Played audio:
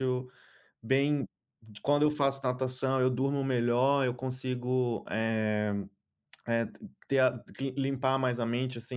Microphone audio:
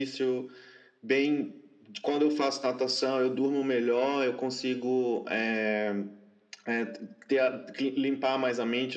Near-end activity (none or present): none